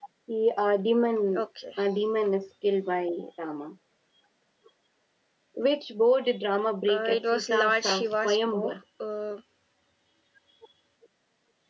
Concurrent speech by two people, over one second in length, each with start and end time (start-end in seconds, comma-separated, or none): 6.9-8.7